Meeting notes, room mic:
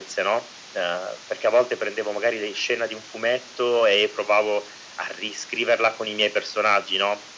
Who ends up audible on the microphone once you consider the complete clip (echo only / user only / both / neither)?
echo only